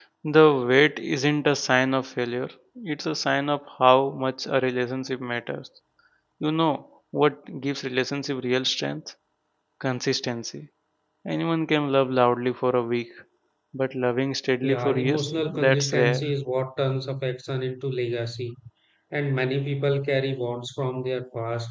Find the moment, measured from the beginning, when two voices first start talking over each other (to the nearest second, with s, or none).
15 s